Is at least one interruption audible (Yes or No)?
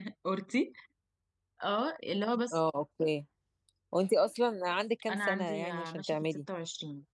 Yes